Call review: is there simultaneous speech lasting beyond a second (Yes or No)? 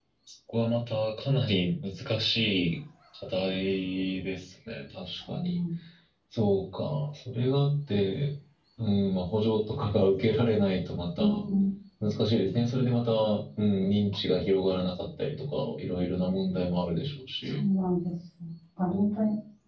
No